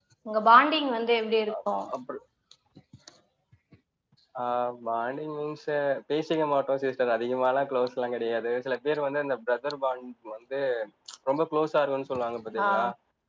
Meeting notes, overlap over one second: none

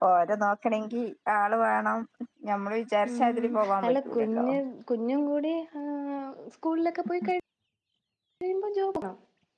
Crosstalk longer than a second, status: present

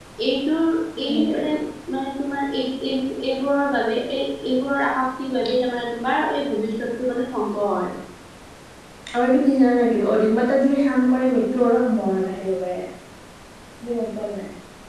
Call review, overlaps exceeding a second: none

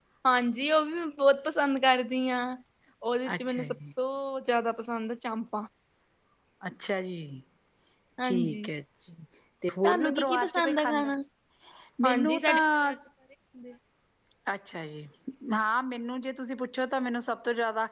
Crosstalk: present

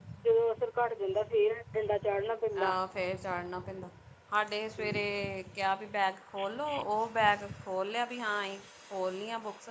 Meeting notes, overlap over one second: none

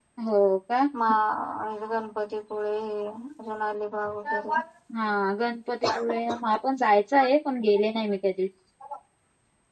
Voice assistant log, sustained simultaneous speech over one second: none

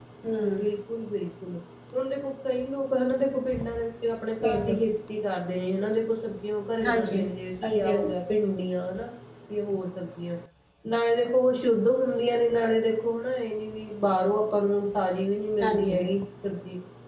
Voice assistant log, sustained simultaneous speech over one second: none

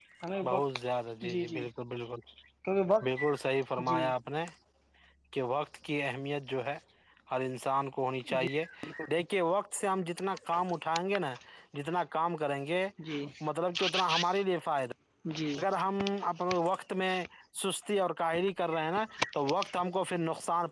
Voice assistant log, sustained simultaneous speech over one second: none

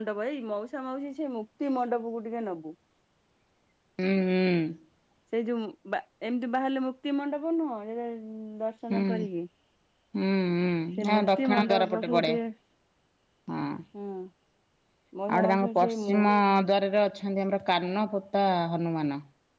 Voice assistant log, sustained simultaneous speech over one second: present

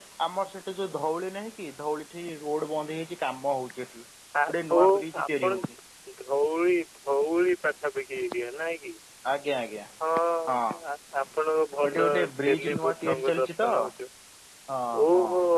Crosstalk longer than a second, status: present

